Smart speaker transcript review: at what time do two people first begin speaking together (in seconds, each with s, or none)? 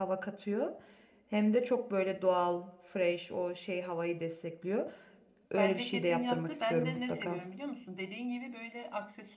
5.6 s